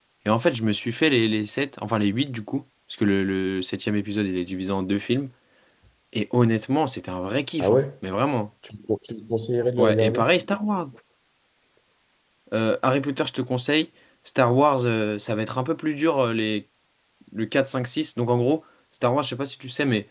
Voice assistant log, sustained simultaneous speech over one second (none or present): none